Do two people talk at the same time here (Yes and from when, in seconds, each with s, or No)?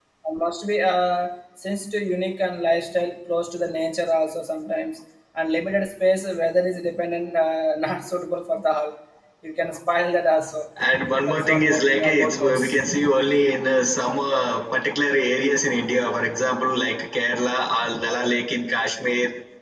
Yes, from 11.3 s